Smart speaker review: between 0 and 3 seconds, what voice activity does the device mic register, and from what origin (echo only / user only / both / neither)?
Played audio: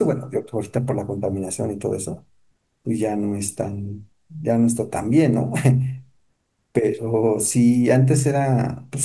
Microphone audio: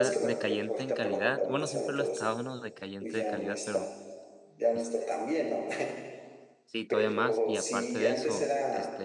both